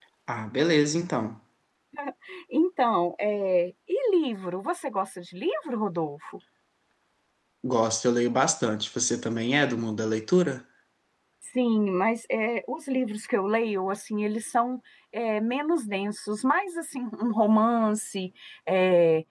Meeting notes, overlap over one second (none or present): none